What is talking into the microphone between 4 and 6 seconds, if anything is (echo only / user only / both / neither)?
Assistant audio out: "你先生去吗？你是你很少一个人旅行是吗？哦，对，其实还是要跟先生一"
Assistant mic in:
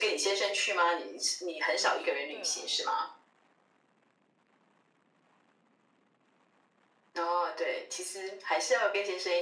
neither